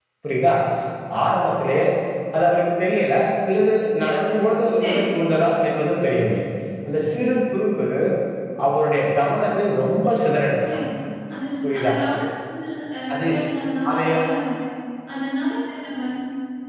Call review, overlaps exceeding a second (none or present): none